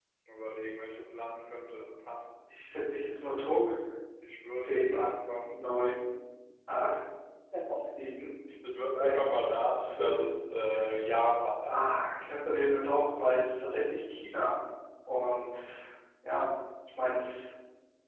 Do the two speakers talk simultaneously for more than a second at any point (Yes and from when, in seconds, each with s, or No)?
No